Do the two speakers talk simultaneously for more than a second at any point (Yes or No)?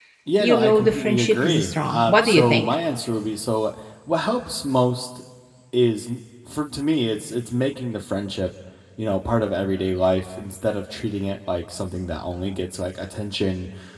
Yes